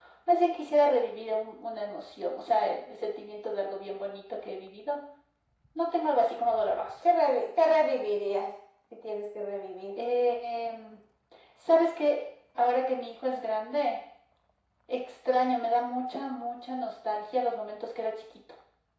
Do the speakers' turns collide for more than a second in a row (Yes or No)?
No